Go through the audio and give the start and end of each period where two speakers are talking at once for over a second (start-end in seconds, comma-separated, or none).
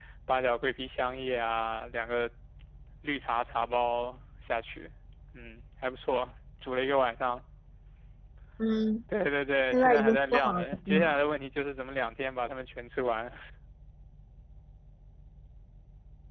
9.7-11.1